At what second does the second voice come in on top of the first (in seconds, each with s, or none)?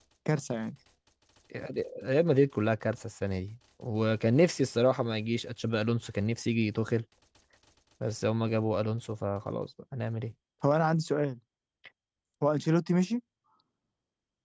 none